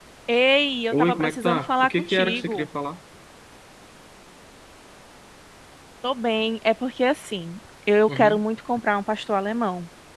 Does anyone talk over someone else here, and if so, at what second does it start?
1 s

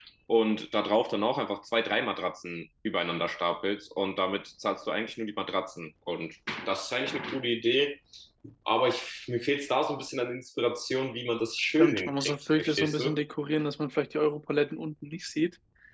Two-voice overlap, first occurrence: 12 s

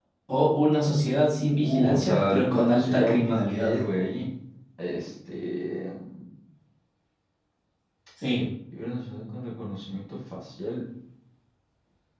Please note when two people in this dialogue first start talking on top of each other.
1 s

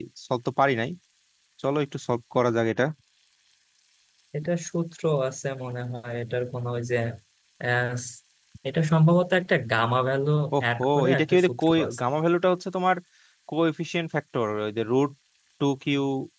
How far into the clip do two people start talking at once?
11 s

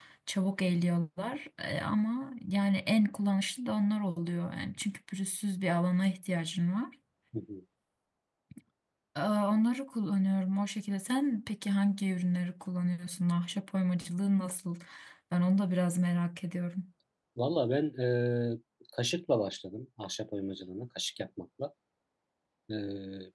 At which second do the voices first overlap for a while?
none

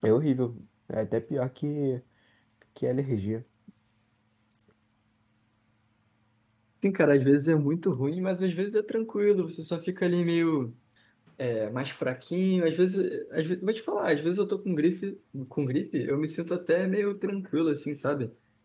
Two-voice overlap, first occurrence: none

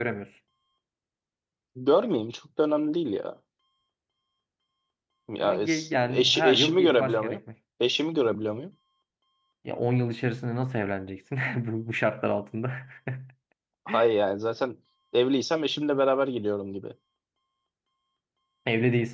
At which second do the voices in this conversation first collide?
5 s

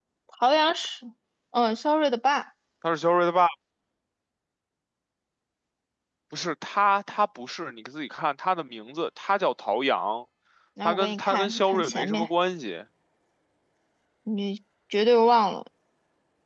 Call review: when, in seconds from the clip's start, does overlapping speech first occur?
11 s

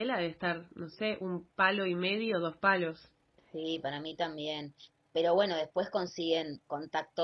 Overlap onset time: none

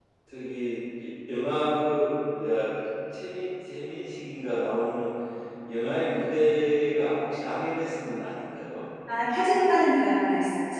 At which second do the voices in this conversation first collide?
none

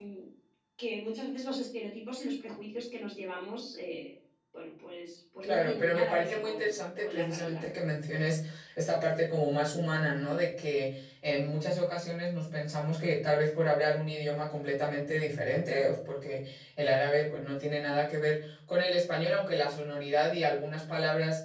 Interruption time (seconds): 5 s

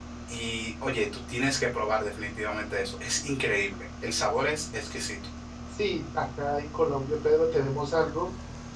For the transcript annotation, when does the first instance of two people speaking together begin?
none

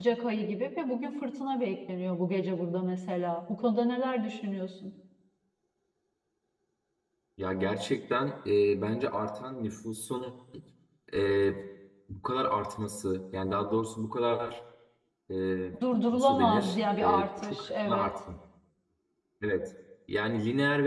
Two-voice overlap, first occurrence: 16 s

